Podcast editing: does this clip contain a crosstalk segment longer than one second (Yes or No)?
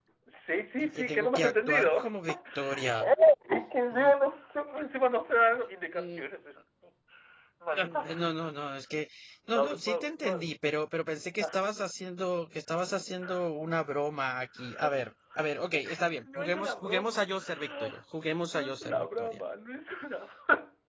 Yes